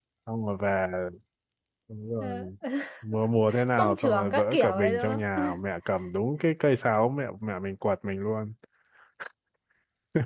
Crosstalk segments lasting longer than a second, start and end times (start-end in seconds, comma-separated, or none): 3.8-5.4